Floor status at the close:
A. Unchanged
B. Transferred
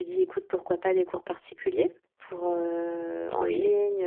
A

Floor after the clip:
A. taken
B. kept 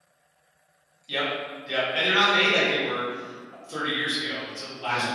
B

